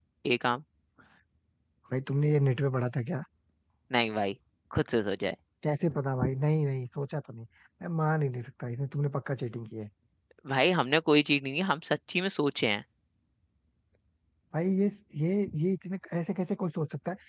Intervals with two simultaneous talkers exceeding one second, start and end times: none

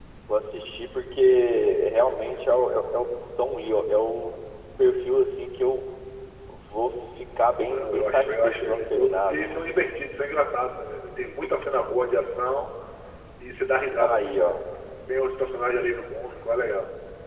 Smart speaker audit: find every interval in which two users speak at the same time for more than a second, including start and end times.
7.7-9.5

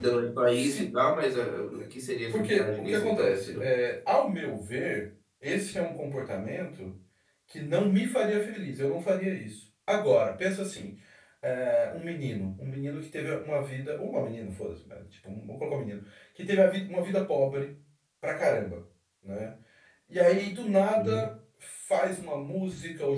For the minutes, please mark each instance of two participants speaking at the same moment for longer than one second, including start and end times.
2.3-3.7

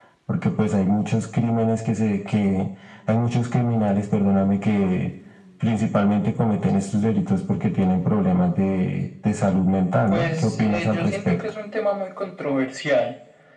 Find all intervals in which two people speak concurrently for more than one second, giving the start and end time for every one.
10.1-11.4

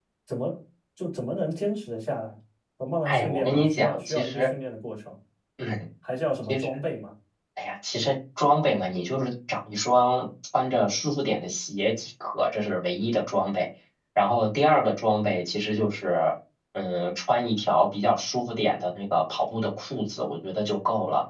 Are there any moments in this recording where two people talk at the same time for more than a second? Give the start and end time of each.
3.0-4.5

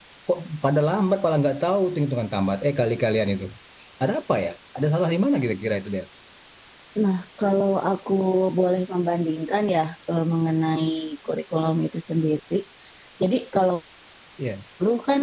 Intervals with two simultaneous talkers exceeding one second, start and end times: none

